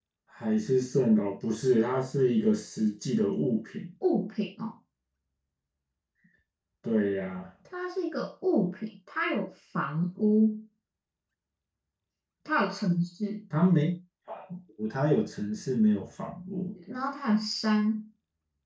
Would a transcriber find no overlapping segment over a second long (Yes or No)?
Yes